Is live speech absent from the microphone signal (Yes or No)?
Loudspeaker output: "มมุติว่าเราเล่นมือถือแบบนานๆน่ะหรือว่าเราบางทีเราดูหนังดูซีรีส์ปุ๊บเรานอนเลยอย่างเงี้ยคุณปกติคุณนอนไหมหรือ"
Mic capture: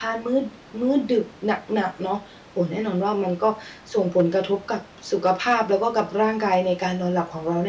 No